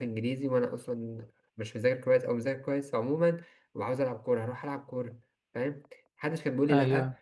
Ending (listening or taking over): listening